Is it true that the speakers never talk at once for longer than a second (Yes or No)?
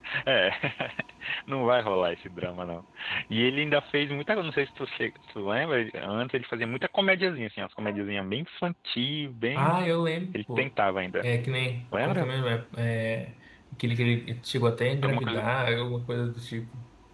Yes